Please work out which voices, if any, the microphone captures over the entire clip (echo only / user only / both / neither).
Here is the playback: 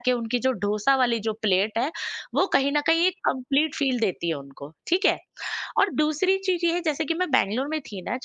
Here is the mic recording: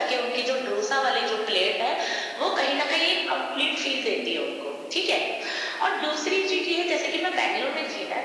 echo only